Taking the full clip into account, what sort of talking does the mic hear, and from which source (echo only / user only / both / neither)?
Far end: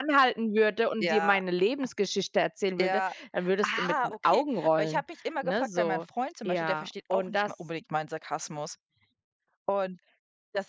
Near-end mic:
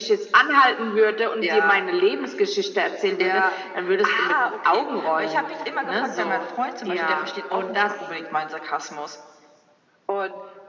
echo only